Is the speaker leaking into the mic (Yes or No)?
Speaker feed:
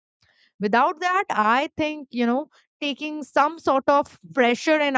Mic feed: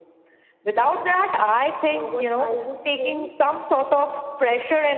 Yes